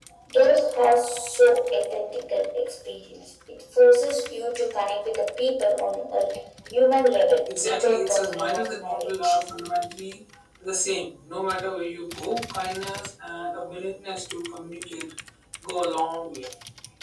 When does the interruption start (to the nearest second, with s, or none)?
7 s